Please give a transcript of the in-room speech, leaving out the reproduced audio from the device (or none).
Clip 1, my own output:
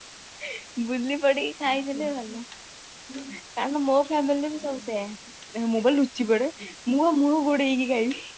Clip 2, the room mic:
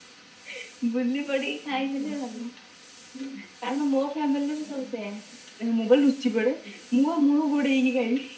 none